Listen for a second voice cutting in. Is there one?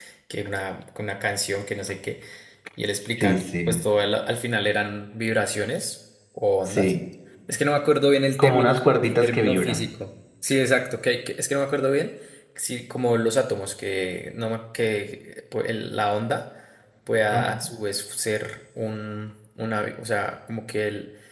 Yes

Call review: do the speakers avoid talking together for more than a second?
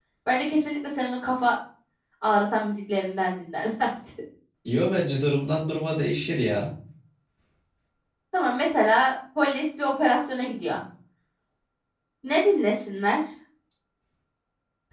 Yes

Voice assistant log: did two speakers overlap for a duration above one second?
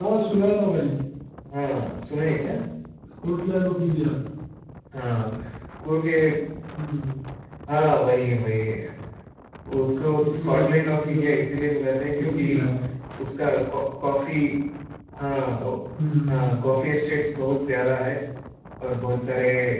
Yes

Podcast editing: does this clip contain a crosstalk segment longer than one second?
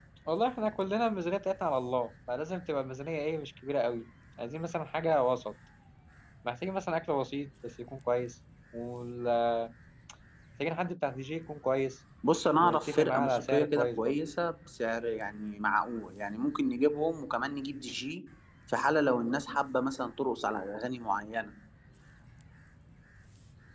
Yes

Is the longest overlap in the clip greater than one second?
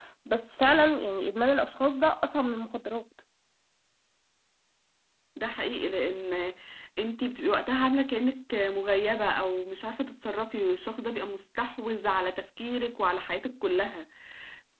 No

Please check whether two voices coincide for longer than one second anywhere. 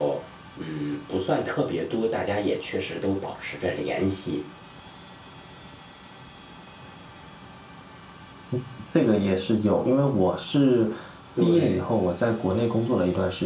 No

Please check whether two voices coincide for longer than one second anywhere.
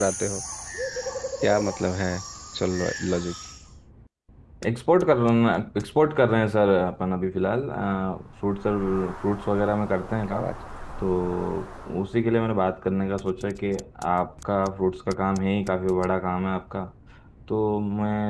No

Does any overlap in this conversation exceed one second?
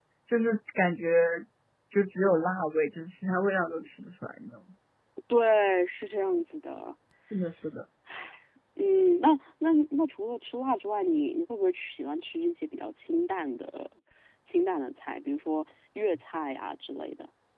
No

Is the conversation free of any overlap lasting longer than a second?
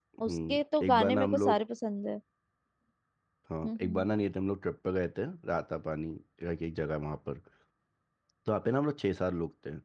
No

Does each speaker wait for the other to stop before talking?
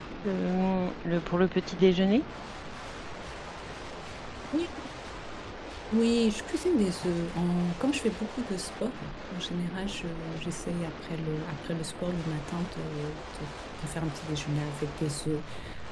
Yes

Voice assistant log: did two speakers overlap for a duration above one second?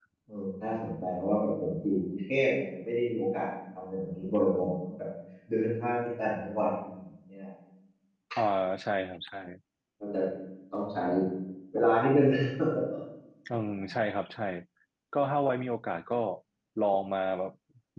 No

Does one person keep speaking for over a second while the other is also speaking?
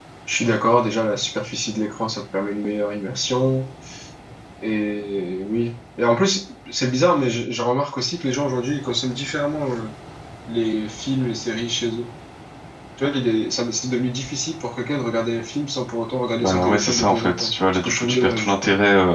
Yes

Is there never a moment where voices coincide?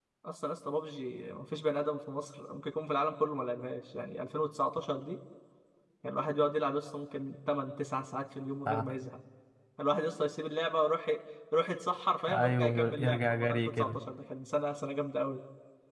No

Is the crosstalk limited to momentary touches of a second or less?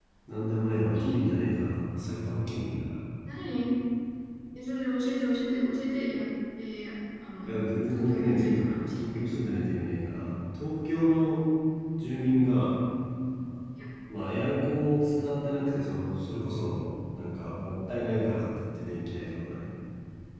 No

